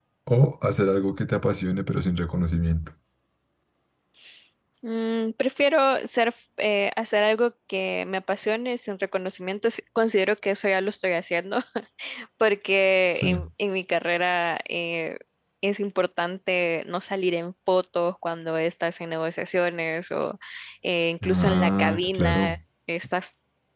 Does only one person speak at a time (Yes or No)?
No